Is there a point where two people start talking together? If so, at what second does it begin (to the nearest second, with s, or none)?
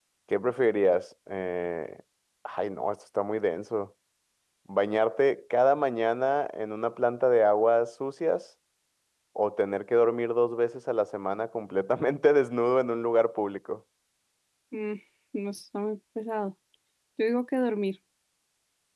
none